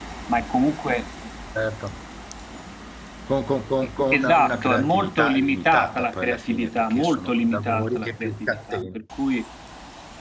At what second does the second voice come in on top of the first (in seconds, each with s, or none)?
4.1 s